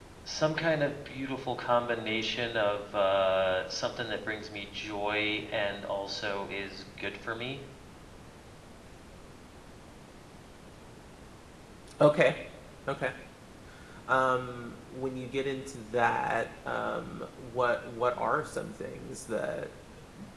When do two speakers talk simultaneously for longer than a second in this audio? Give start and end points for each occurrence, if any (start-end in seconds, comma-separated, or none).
none